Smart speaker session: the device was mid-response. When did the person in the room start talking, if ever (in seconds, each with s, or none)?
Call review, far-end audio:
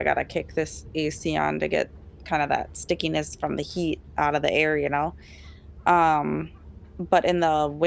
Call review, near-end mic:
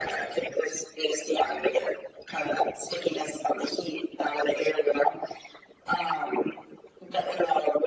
none